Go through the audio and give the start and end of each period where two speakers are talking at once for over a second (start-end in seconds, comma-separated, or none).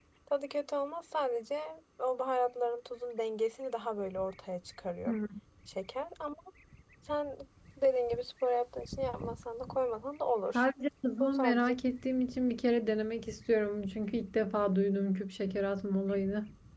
none